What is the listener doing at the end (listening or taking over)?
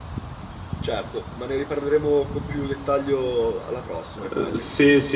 taking over